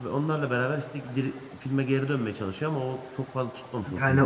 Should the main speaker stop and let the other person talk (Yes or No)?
Yes